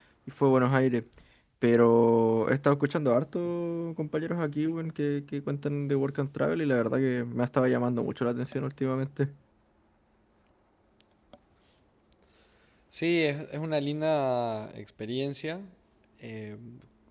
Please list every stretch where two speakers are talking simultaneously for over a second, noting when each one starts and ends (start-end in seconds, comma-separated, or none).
none